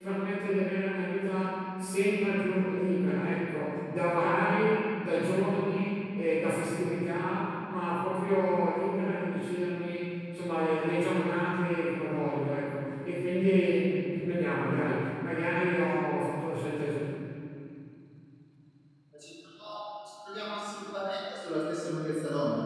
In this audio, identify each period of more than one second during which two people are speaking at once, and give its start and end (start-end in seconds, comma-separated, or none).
none